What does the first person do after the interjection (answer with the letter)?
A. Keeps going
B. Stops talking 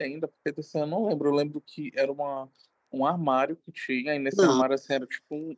A